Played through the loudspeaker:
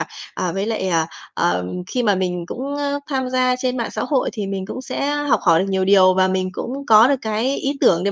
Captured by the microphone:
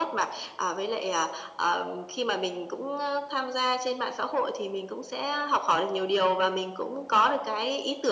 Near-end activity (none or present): none